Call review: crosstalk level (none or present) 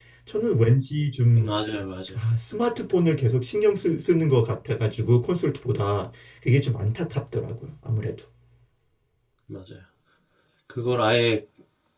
none